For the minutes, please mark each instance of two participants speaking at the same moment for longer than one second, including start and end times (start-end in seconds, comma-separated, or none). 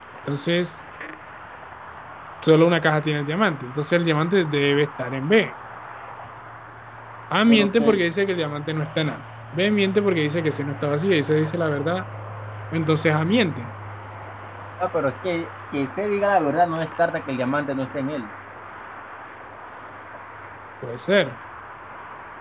none